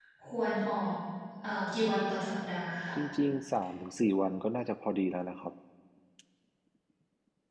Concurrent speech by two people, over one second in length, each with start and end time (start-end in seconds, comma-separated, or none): none